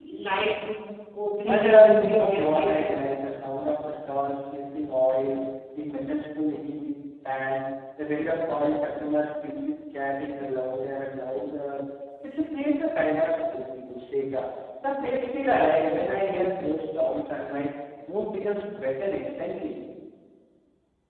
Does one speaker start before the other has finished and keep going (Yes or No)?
Yes